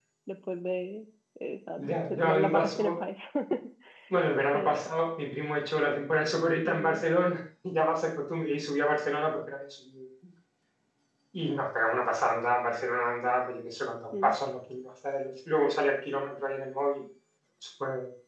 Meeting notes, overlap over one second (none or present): present